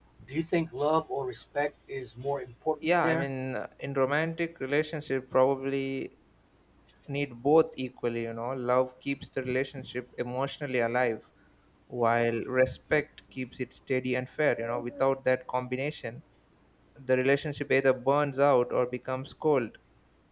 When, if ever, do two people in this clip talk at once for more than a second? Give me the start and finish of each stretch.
none

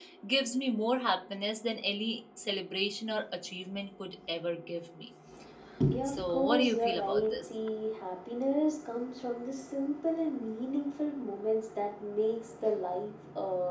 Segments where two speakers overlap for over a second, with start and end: 6.2-7.4

